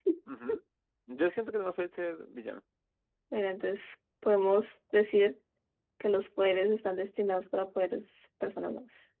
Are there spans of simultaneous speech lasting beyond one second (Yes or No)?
No